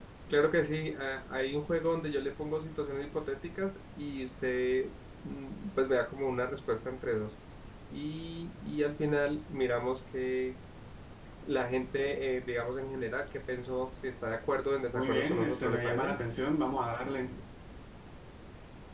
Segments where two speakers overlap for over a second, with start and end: 14.9-16.1

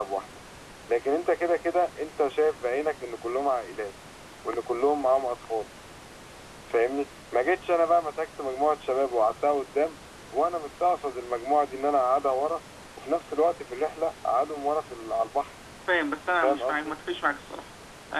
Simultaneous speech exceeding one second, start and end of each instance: none

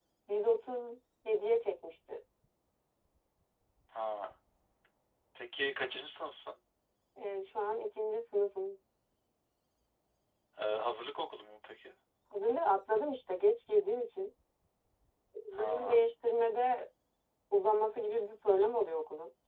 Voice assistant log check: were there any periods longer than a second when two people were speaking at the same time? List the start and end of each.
none

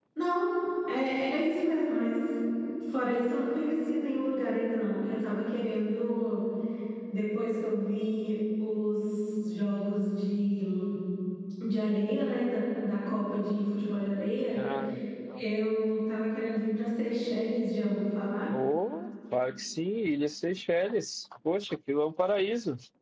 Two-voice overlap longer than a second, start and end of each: none

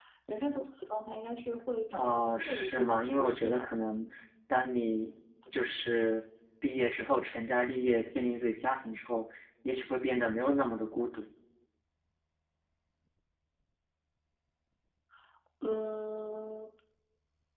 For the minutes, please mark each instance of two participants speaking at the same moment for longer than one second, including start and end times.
1.9-3.7

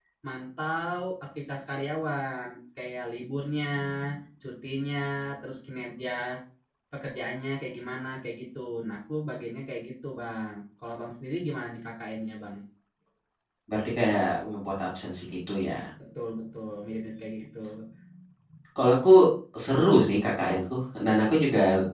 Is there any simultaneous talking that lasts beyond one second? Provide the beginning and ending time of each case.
none

